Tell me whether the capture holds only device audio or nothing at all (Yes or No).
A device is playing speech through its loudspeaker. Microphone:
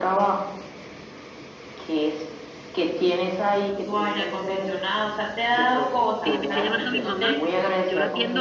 No